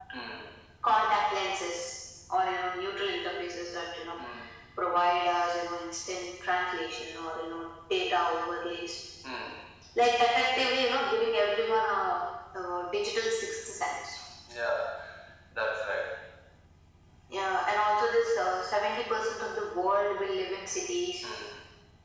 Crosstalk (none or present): none